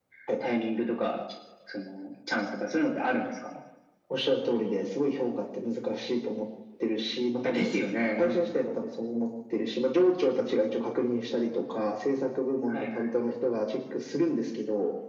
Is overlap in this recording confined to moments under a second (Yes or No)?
Yes